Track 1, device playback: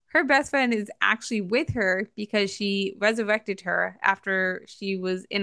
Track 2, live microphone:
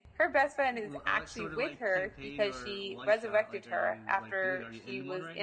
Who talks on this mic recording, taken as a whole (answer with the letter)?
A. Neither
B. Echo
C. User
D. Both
D